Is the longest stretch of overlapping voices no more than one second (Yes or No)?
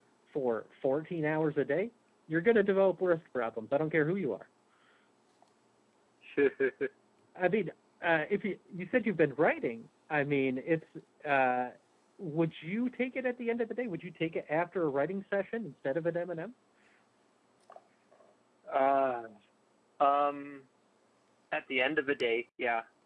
Yes